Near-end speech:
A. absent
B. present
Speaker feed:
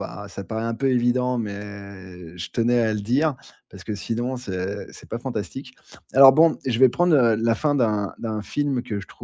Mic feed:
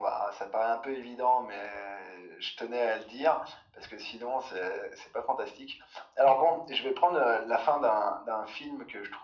A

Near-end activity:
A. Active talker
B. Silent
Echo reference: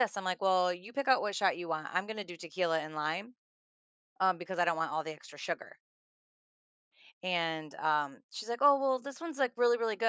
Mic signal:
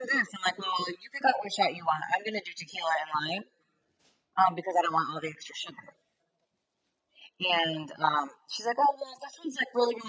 B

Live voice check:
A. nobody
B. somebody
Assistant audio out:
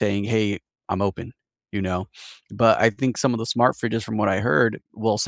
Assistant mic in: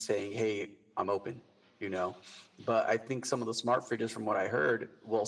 A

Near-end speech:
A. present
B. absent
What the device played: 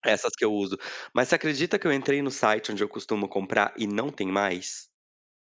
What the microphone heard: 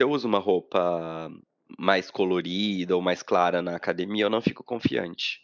A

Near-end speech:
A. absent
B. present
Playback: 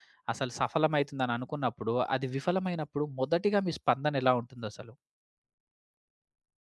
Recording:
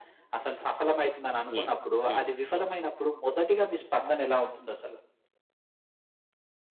B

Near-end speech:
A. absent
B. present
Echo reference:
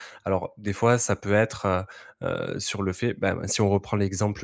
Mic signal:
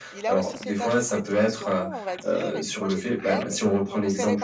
B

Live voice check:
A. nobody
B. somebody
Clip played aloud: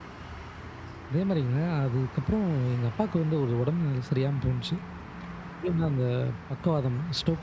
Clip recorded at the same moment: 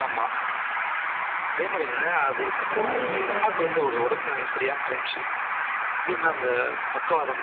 B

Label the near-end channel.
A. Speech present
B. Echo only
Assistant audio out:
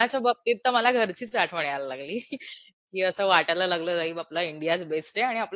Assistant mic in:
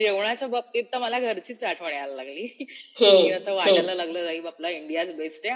A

